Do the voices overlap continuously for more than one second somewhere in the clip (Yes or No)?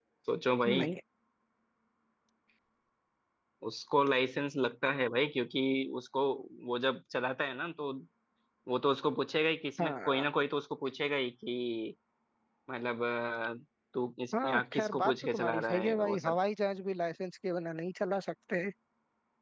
Yes